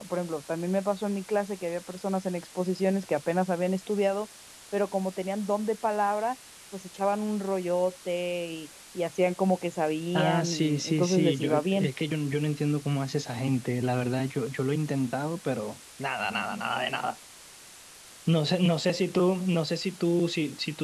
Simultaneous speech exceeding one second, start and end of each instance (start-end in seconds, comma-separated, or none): 10.2-11.9